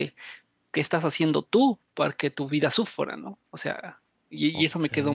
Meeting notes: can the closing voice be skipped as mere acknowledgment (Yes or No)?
Yes